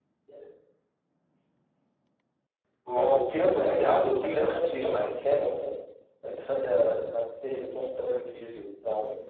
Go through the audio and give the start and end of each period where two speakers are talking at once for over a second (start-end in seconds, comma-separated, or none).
3.4-5.1